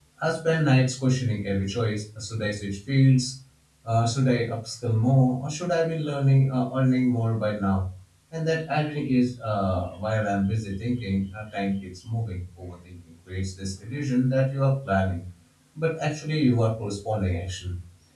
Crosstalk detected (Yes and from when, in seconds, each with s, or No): No